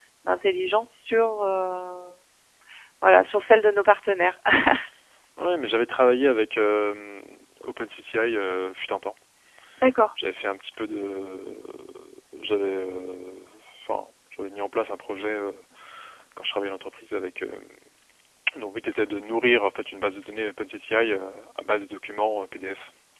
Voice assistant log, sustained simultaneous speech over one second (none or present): none